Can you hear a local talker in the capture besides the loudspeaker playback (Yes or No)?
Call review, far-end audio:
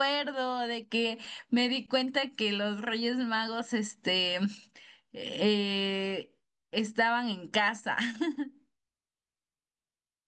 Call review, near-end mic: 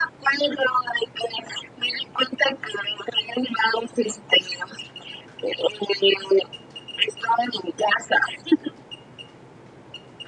No